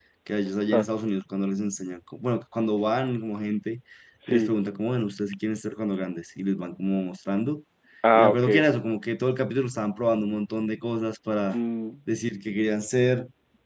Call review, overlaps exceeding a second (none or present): none